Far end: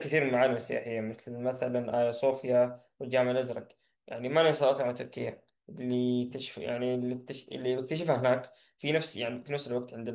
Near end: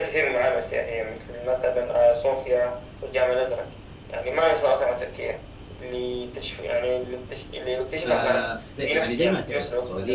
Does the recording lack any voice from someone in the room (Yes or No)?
No